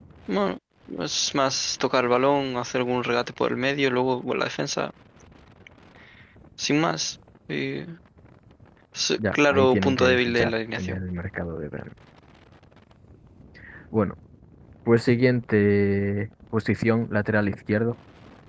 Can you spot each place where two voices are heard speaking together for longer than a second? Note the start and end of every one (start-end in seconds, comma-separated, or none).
9.3-11.0